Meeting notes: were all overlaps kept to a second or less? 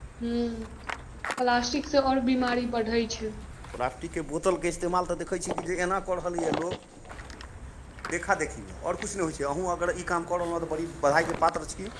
Yes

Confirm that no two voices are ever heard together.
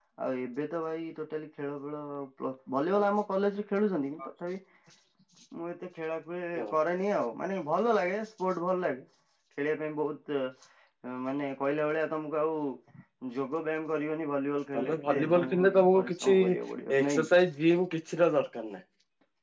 No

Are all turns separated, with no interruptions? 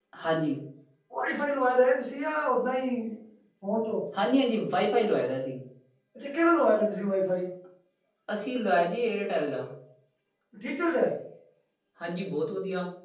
Yes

